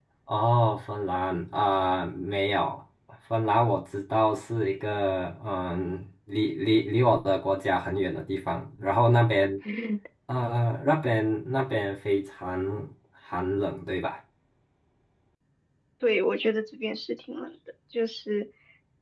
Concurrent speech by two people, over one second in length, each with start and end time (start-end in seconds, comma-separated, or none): none